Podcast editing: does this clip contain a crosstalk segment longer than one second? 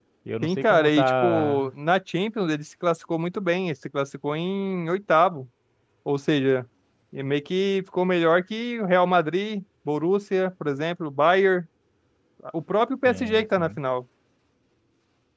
Yes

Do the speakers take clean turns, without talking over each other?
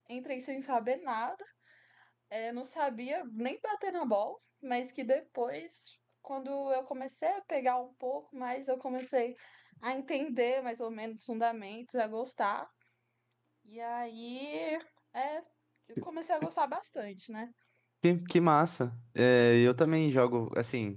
Yes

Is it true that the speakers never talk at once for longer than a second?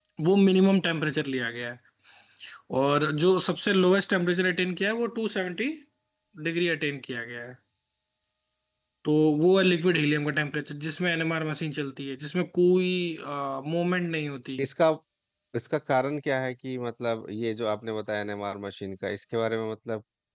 Yes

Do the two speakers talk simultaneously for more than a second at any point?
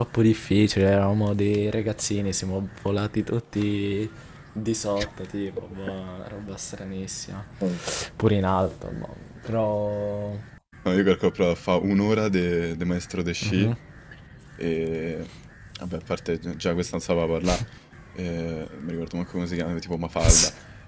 No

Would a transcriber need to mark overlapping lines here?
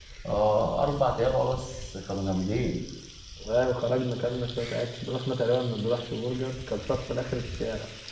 No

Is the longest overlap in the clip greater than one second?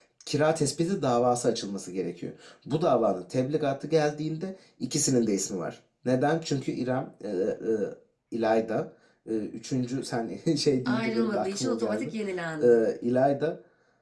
Yes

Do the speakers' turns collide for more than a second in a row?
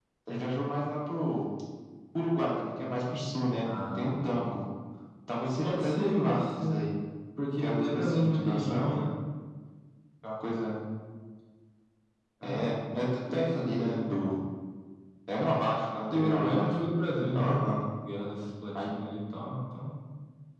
Yes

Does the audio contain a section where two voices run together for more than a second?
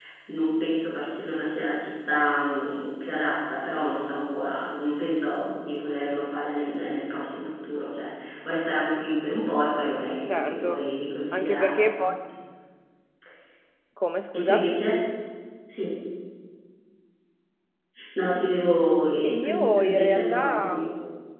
Yes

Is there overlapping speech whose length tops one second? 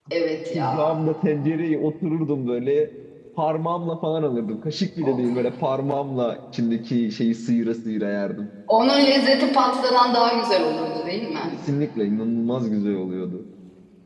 No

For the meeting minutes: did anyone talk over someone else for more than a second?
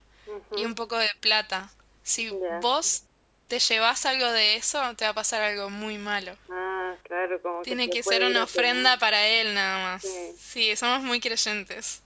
Yes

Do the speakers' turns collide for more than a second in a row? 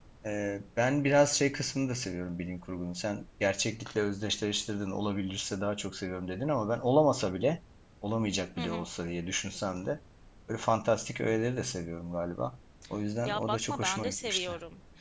Yes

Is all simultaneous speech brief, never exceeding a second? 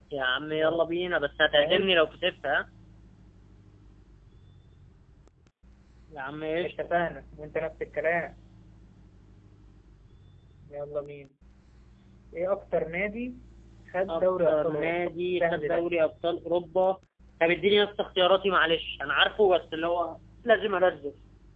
No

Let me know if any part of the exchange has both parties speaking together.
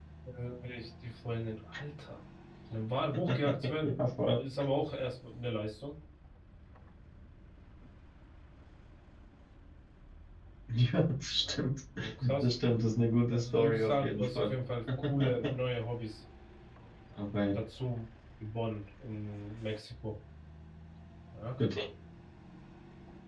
Yes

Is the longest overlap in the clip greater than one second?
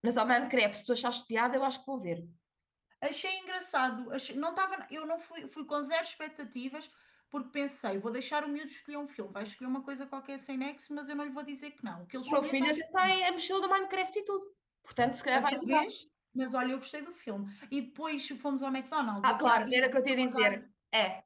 Yes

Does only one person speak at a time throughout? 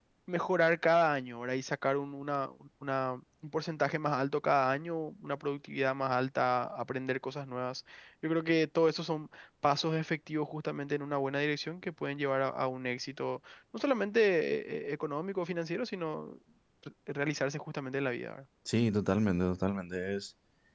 Yes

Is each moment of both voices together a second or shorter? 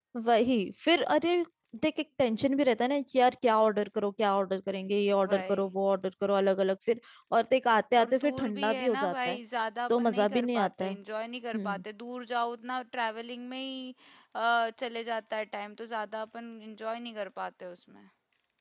No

